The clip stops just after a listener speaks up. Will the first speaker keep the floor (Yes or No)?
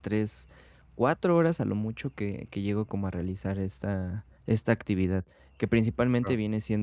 Yes